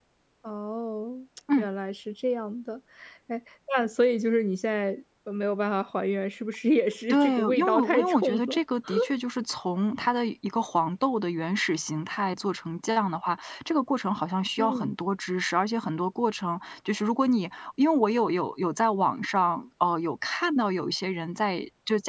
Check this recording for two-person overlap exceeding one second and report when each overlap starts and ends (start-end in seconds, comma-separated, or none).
7.1-8.6